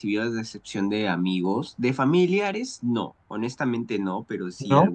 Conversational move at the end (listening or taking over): listening